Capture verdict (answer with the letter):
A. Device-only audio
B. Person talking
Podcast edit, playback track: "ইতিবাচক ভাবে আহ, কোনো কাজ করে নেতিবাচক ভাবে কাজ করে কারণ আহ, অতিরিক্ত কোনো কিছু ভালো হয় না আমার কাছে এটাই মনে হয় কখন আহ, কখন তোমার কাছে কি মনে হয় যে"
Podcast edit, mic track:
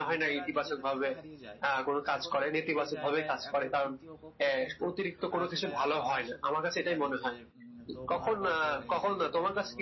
B